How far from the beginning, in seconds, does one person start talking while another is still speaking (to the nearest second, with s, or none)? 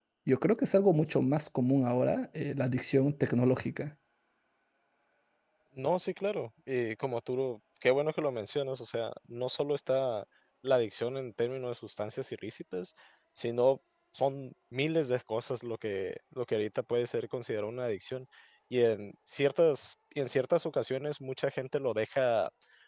none